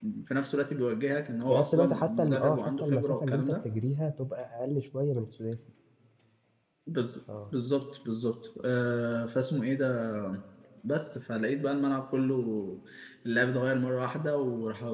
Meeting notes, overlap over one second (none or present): present